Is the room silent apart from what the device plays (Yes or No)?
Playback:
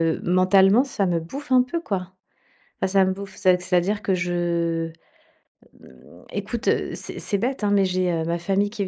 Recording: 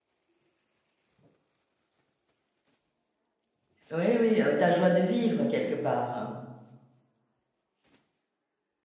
No